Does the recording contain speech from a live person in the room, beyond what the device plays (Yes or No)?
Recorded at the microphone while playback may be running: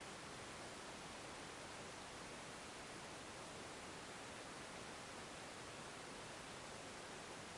No